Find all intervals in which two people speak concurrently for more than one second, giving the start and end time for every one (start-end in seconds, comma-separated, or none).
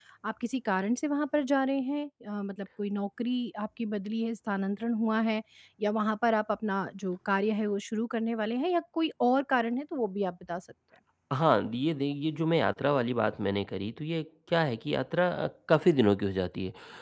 none